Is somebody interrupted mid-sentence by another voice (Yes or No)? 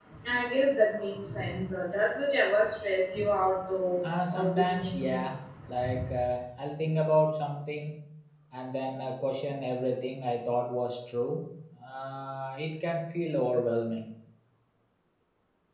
Yes